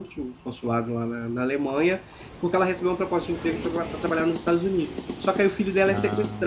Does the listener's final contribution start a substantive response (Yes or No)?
No